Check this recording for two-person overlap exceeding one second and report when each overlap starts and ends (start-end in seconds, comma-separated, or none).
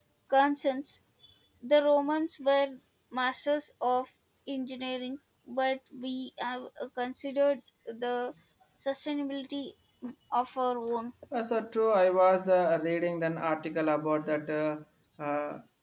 none